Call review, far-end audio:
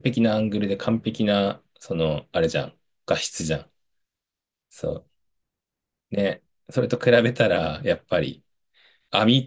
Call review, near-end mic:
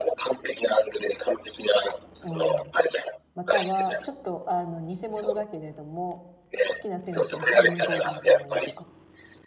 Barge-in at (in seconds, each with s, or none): 2.2 s